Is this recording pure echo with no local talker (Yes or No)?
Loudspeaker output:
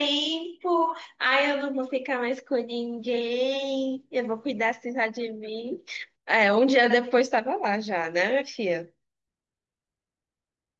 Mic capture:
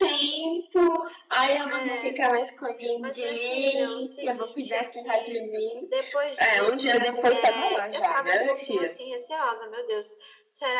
No